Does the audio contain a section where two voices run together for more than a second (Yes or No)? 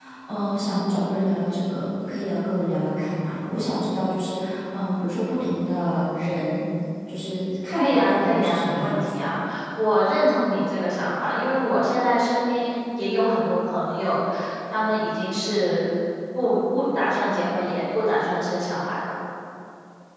Yes